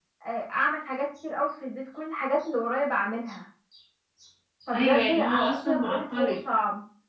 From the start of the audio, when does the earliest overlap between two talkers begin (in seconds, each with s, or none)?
4.7 s